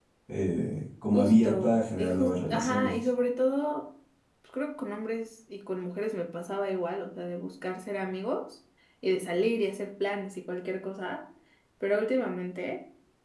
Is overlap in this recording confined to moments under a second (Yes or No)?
No